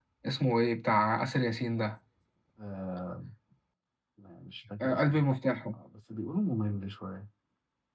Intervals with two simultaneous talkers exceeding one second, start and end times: none

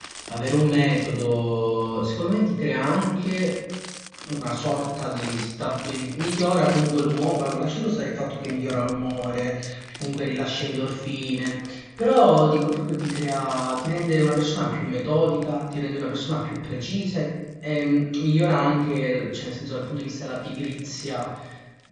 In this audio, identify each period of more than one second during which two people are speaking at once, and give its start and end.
none

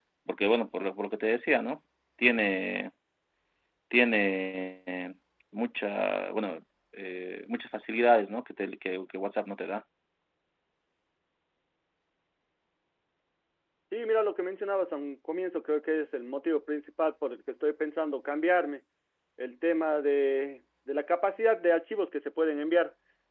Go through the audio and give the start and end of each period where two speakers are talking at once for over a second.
none

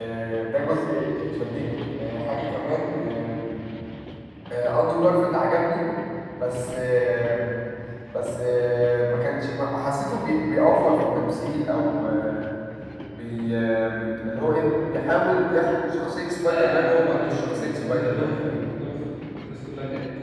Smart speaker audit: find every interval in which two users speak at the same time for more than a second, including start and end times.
16.4-18.5

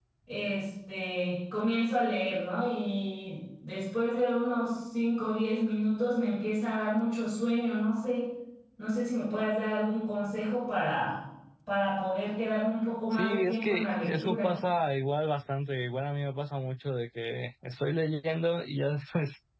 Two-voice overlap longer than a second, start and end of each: 13.1-14.5

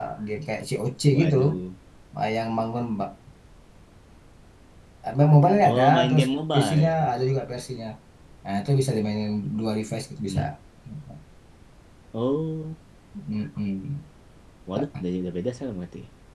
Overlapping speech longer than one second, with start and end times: 5.6-7.1

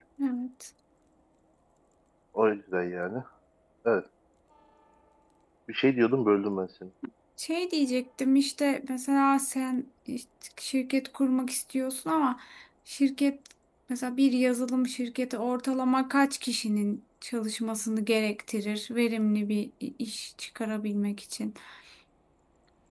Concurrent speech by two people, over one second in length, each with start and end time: none

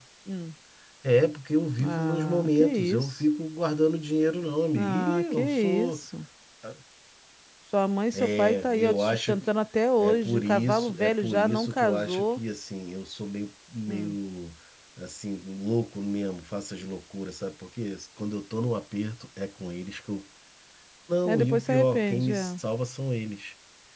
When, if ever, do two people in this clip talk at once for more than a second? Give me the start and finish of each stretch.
1.8-3.2, 4.7-6.0, 8.1-9.4, 10.0-12.4, 21.2-22.6

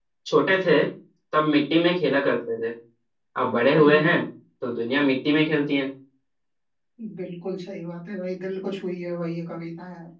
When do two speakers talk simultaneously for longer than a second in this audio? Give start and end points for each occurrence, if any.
none

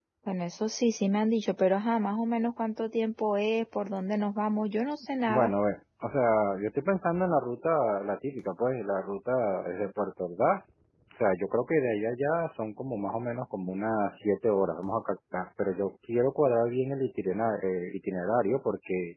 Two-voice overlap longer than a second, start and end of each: none

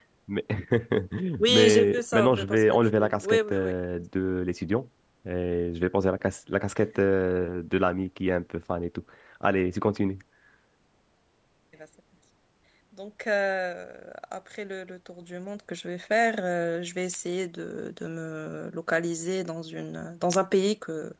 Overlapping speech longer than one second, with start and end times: 1.5-3.7

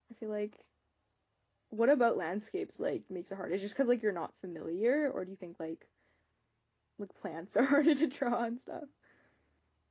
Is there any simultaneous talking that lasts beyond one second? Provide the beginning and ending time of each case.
none

